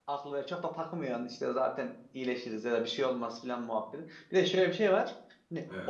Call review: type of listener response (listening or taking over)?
listening